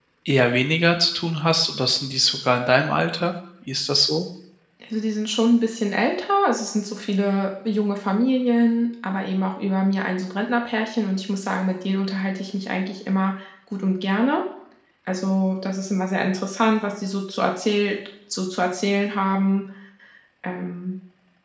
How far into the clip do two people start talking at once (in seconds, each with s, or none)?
none